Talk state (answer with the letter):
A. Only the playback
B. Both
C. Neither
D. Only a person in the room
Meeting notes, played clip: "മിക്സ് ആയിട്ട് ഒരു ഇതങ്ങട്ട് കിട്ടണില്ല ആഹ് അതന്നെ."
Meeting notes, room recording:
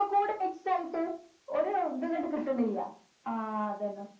A